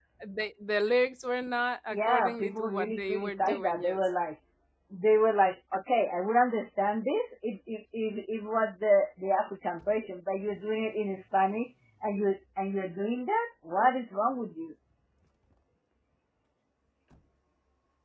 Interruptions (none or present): present